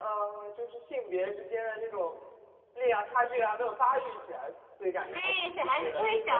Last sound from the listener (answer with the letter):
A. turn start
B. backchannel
A